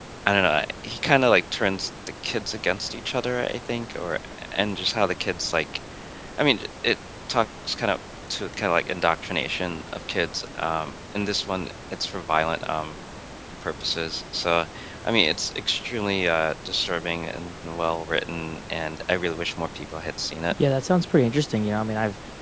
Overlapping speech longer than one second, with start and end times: none

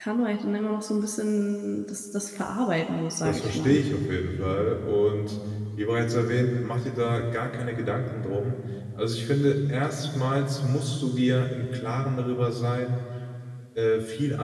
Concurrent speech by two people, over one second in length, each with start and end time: none

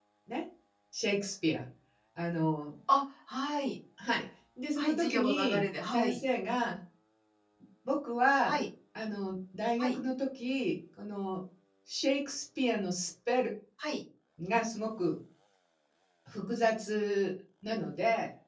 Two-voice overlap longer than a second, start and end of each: 4.8-6.2

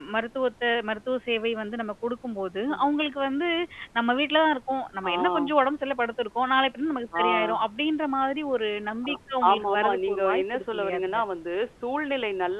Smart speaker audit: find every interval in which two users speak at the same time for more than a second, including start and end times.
9.5-11.2

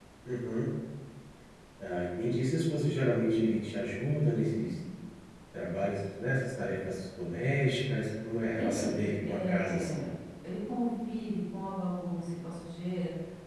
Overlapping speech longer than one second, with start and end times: 8.6-10.1

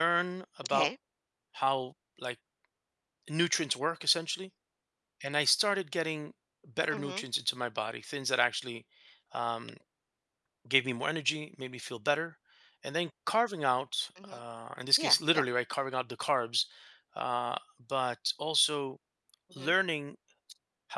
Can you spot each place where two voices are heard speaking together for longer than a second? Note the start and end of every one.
none

